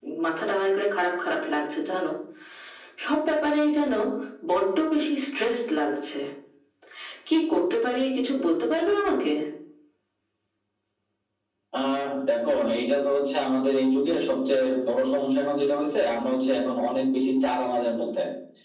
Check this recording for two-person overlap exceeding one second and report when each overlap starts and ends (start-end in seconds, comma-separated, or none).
none